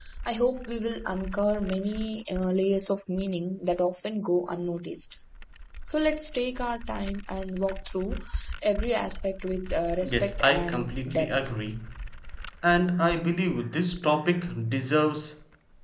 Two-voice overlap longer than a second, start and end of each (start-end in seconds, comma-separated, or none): 10.0-11.5